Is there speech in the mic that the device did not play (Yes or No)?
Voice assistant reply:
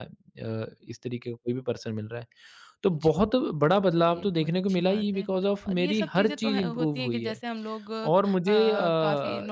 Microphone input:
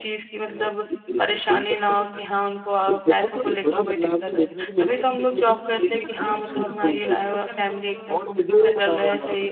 Yes